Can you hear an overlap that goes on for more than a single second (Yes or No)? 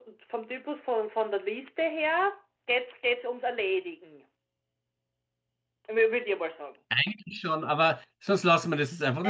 No